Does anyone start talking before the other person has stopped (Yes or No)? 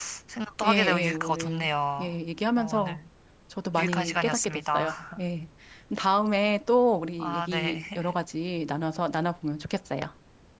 Yes